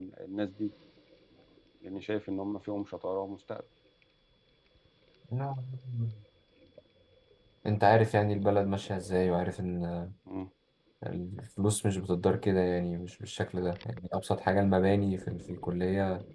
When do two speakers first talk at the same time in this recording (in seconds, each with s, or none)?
none